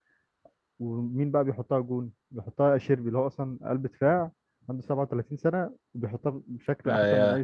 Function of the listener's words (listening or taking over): taking over